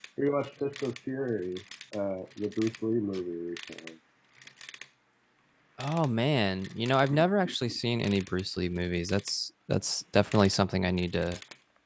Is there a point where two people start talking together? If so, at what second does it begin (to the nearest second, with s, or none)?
none